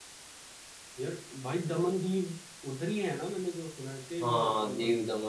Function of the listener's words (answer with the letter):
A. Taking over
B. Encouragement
A